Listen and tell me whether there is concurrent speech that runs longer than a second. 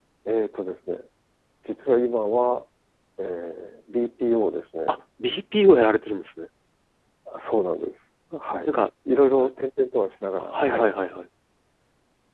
No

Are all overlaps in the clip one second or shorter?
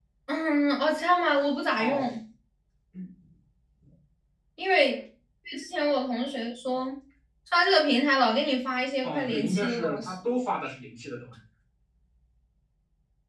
No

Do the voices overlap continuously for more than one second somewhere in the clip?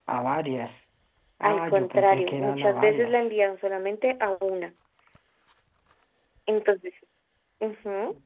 Yes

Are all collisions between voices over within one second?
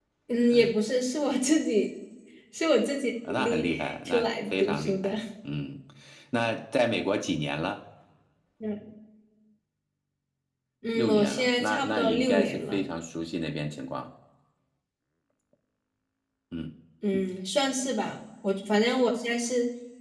No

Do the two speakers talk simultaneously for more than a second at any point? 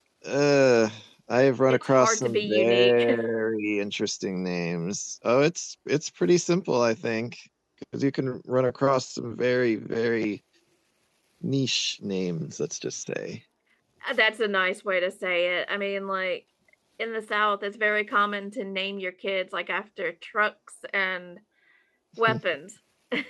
Yes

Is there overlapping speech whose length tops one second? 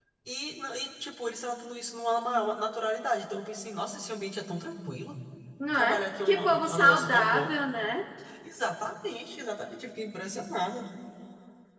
Yes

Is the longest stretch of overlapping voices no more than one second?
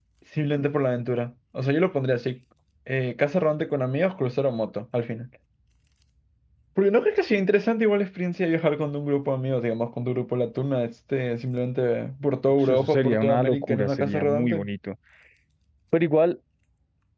No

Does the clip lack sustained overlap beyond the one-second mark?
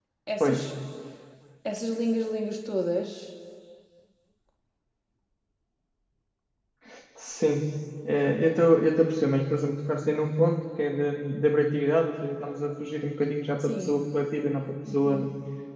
Yes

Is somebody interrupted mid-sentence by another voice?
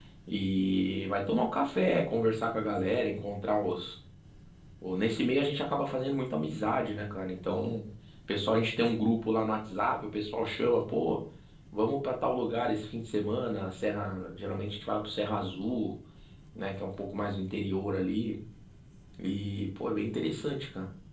No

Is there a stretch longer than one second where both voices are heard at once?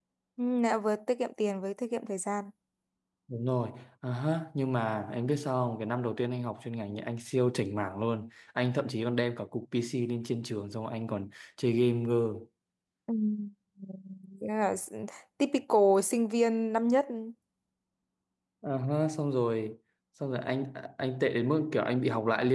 No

